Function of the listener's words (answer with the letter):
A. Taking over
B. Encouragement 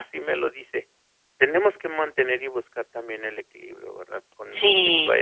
A